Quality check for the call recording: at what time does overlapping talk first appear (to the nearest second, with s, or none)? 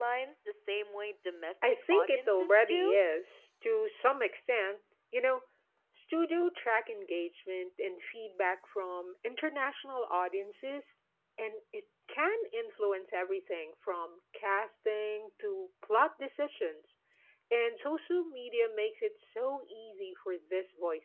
2 s